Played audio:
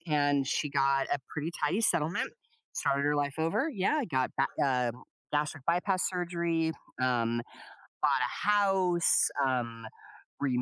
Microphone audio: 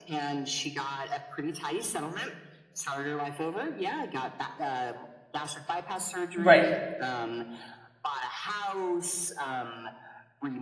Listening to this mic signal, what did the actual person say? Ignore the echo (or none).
Right.